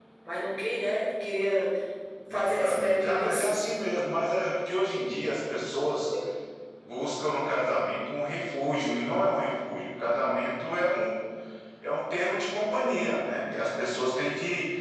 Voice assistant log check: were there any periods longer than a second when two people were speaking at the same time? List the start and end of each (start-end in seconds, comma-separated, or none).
2.3-3.6